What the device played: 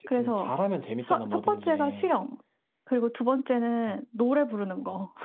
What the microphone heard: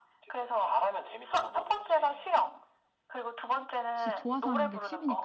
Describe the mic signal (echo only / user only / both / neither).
both